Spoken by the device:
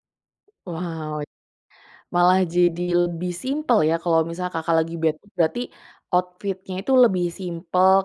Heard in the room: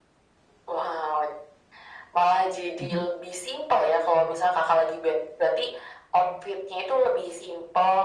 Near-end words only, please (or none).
mhm.